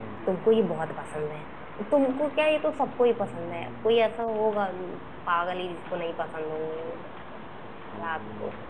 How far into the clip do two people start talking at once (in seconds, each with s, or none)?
none